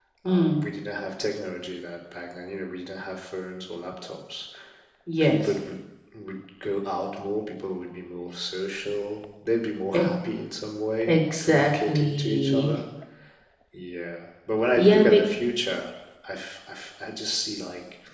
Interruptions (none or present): present